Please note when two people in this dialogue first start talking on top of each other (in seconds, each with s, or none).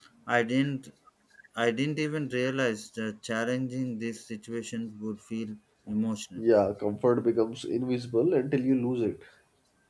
none